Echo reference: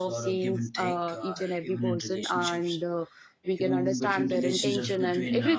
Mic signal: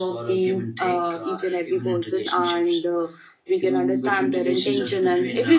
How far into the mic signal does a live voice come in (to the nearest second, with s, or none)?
none